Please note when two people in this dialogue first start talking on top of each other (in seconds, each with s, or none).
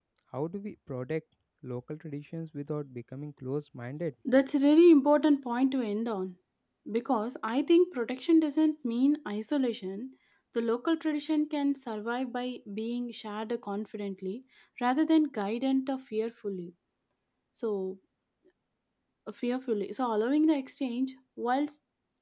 none